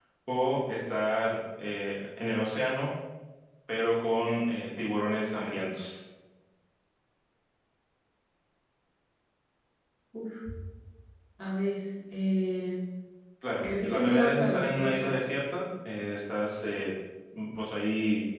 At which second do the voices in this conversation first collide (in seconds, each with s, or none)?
13.6 s